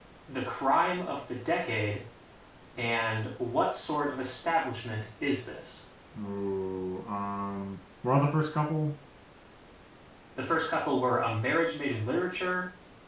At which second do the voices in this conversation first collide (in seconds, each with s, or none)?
none